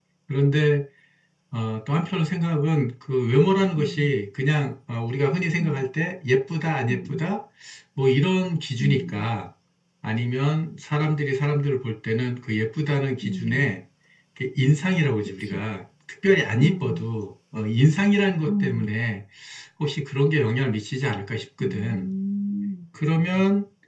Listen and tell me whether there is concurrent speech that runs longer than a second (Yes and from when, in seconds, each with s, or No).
No